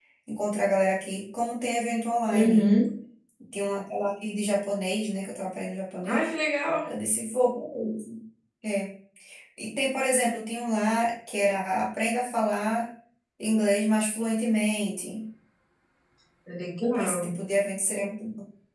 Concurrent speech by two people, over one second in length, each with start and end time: none

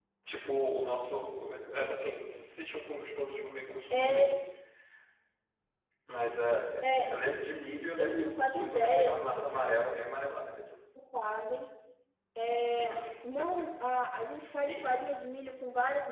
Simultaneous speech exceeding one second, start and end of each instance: 8.0-10.0

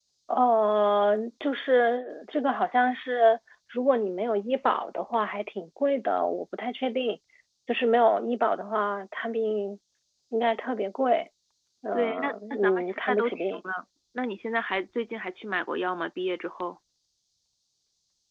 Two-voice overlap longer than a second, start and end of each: 11.9-13.6

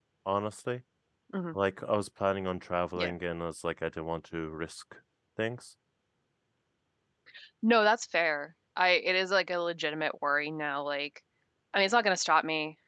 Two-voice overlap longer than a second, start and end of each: none

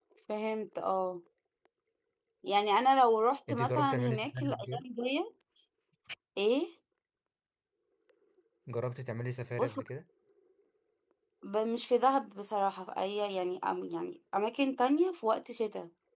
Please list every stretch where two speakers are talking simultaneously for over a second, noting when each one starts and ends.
3.5-4.8

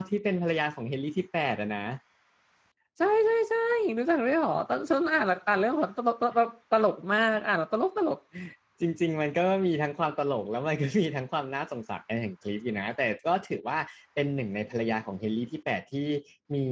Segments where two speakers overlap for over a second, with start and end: none

